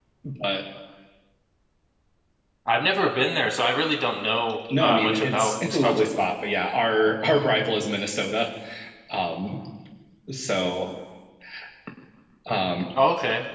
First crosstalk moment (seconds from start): 4.7 s

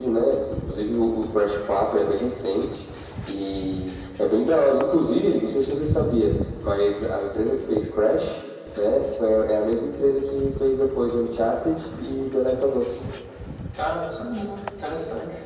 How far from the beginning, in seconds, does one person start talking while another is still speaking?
none

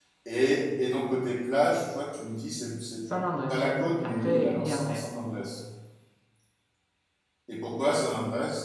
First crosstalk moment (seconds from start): 3.5 s

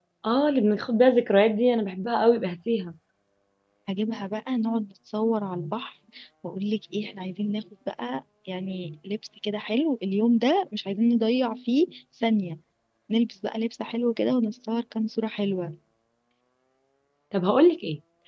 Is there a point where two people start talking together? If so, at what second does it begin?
none

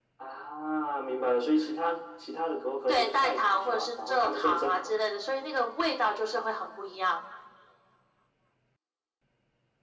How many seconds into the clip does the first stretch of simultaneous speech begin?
2.9 s

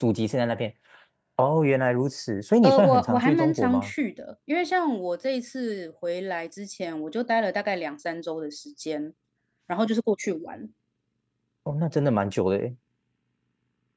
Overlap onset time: 2.6 s

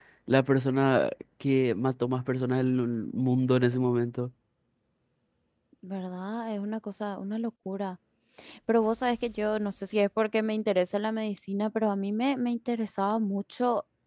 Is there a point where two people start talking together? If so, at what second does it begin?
none

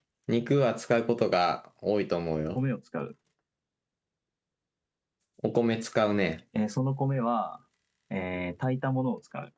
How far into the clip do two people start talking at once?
none

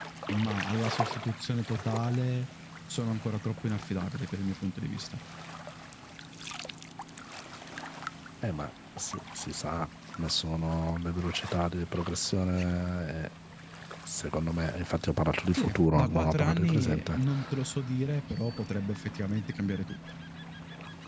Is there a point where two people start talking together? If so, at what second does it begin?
15.5 s

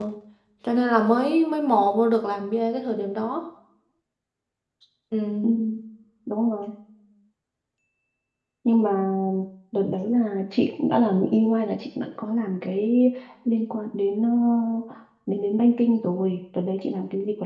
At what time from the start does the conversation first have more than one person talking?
none

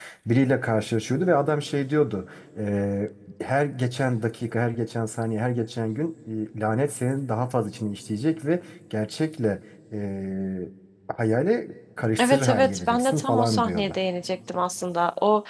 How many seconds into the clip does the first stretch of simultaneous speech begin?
12.2 s

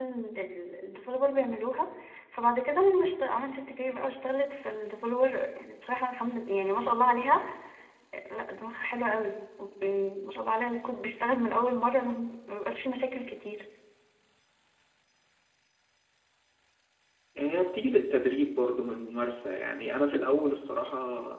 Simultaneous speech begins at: none

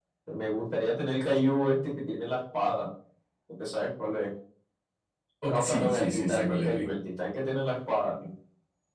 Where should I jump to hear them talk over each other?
5.5 s

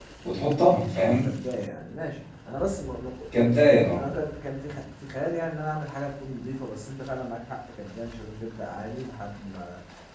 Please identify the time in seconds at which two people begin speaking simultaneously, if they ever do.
none

